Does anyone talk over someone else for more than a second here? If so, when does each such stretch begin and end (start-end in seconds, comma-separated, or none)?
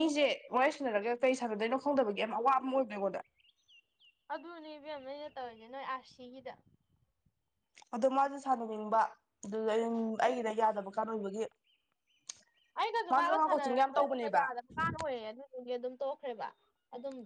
13.1-14.4